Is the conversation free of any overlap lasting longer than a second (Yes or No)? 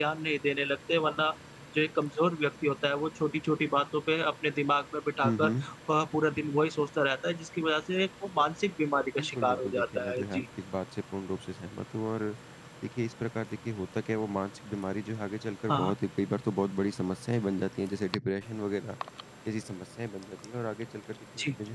No